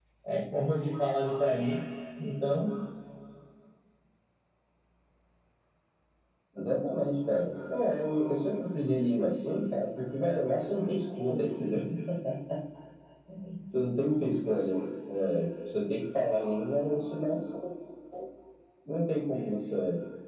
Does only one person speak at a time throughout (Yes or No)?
Yes